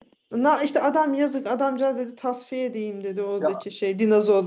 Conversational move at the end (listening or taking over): listening